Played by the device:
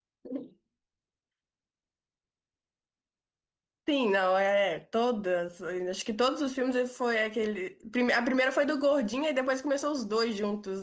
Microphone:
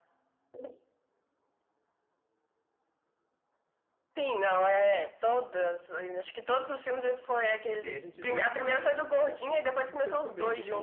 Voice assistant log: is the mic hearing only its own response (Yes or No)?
No